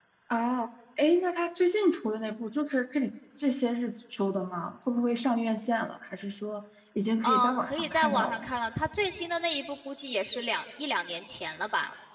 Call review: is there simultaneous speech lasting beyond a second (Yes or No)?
Yes